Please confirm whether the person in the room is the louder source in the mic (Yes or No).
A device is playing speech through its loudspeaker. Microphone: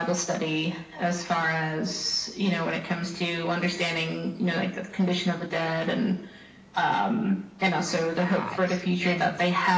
No